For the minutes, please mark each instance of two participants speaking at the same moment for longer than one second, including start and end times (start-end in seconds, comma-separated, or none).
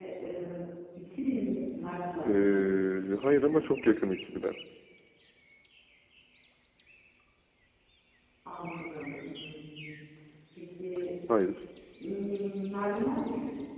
2.2-3.6